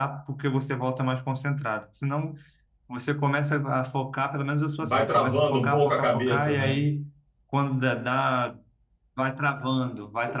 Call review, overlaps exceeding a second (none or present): present